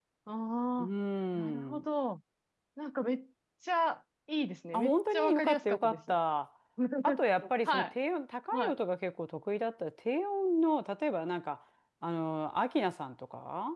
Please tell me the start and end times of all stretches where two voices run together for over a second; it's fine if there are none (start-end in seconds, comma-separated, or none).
4.7-6.0